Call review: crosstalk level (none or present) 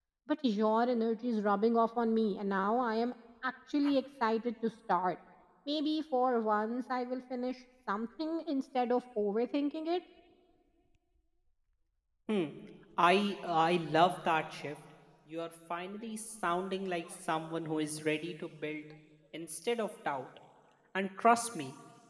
none